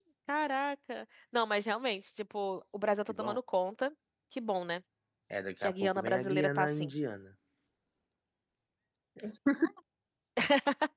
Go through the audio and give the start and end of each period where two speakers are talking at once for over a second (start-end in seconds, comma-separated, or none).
5.6-6.9